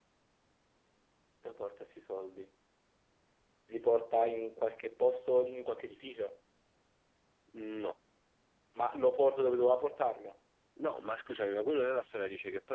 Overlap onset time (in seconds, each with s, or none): none